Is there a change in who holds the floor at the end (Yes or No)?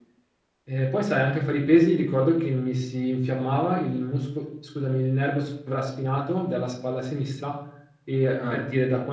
No